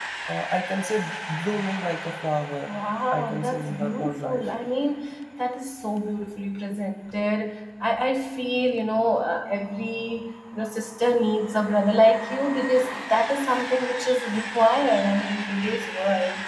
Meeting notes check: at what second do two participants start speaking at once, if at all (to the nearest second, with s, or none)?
3 s